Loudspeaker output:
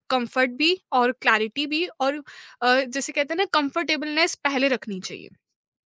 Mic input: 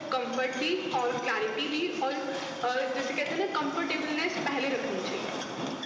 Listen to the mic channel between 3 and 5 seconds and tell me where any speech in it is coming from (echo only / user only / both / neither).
echo only